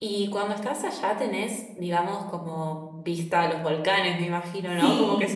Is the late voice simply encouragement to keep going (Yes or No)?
No